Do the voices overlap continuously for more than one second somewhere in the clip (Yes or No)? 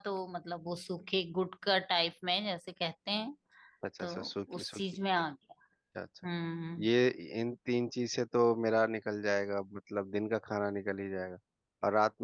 No